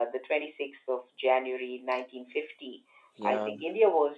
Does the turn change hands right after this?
No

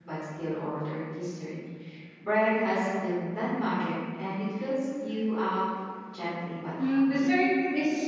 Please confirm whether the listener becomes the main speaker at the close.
Yes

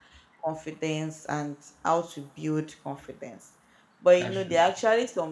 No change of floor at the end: Yes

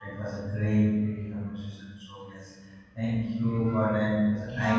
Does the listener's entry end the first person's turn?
Yes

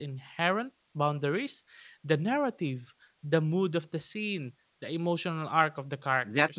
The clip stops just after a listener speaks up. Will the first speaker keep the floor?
No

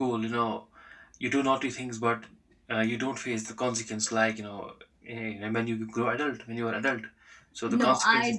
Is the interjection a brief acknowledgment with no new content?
No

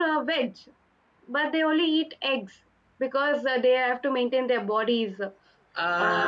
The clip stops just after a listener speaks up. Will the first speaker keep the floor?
No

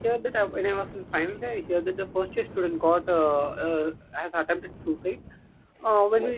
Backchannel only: Yes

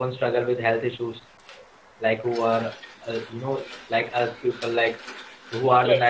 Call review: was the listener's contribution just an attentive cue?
Yes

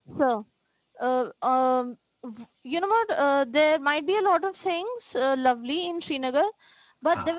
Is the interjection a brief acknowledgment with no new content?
Yes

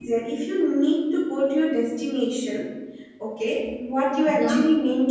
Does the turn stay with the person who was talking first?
Yes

